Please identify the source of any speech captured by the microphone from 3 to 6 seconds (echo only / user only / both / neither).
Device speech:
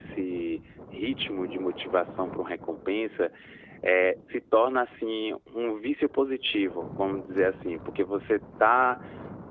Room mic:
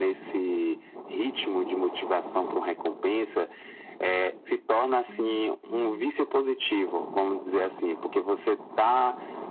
both